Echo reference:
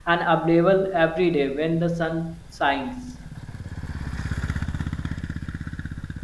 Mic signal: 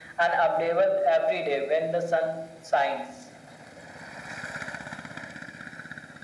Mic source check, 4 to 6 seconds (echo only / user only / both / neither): neither